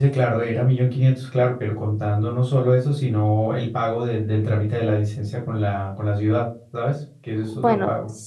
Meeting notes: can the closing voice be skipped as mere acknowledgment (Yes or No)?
No